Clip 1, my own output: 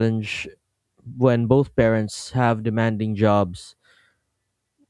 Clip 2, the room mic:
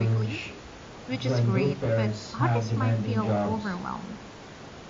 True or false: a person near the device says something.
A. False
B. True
B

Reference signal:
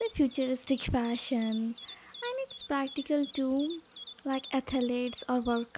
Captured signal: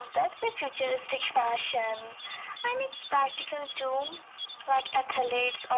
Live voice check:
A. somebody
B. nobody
B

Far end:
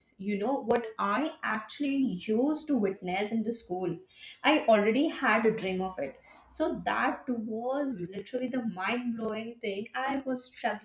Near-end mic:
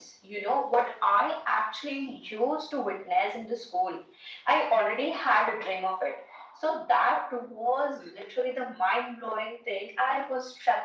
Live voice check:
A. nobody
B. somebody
A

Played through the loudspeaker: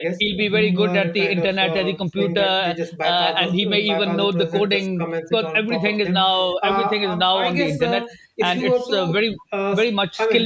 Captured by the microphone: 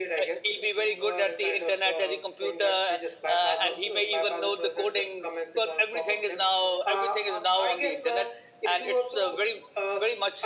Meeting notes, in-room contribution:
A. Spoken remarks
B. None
B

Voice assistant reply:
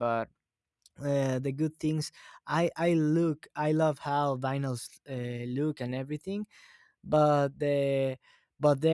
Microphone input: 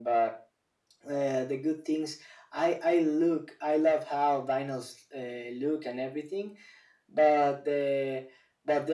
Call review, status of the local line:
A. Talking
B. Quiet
B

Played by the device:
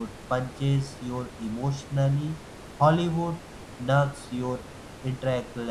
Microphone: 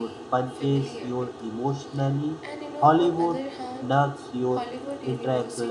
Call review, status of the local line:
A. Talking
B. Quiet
A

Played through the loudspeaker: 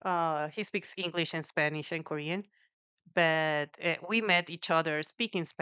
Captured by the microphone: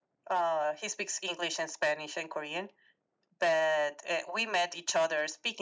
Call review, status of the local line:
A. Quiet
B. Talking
A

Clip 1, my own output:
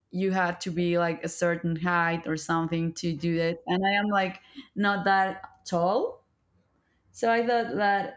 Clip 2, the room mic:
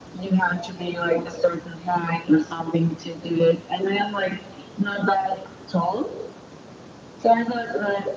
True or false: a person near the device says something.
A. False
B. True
A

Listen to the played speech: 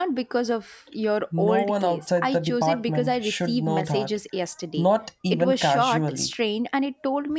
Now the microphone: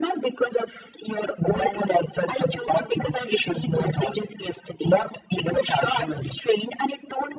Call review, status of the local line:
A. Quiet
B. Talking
A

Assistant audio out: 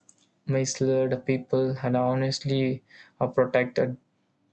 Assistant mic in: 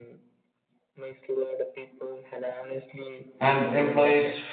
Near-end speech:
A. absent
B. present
B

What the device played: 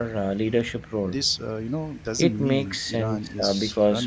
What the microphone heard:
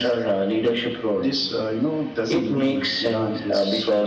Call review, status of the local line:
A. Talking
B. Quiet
B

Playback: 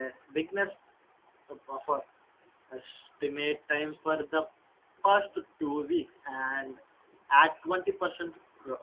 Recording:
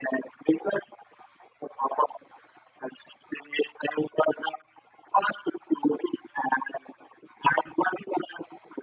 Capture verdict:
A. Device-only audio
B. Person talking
A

